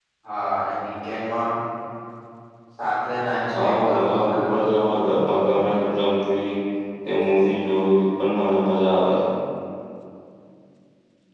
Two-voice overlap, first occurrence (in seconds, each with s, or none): 3.5 s